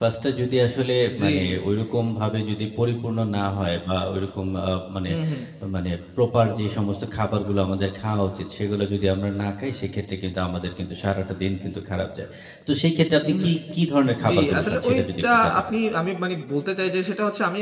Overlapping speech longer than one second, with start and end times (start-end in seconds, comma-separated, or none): 14.3-15.6